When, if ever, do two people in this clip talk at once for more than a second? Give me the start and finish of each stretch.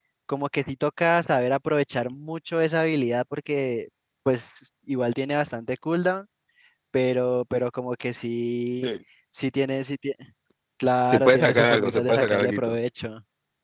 11.1-12.8

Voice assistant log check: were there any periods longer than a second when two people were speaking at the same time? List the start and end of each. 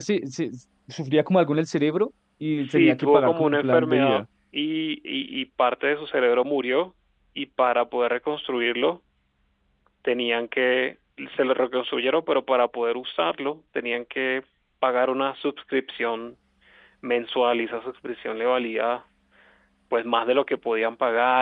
2.6-4.2

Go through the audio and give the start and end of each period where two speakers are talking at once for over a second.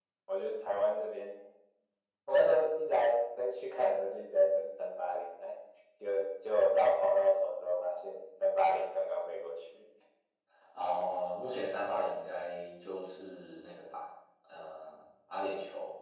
none

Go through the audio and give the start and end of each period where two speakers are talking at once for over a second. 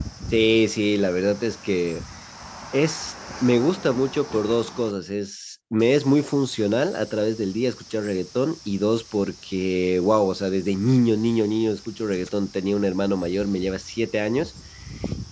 none

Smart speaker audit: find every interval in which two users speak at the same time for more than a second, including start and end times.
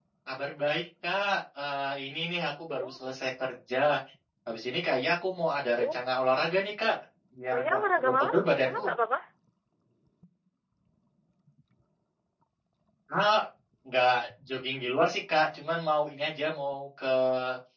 7.5-8.8

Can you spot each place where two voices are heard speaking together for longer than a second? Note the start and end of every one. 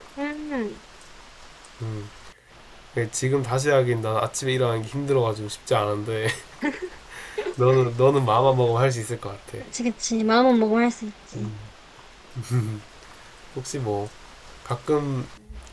none

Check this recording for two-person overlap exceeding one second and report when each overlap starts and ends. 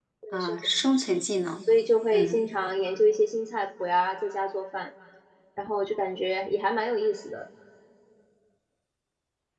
none

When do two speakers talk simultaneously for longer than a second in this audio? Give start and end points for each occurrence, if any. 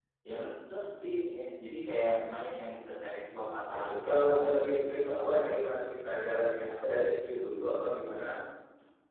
3.8-5.1

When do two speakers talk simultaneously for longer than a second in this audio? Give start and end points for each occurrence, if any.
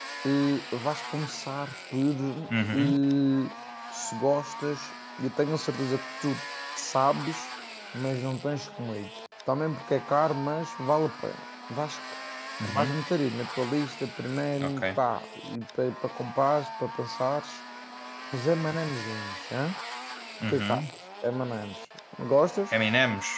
none

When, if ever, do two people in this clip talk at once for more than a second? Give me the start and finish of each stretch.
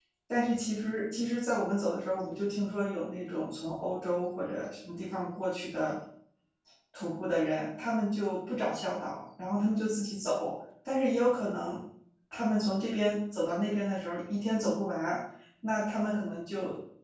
none

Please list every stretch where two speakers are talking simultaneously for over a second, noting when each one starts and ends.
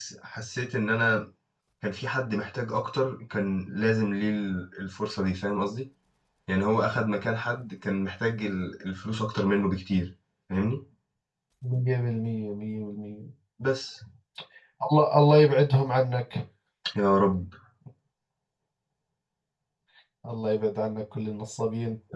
none

